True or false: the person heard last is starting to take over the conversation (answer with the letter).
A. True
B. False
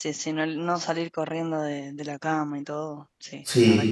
A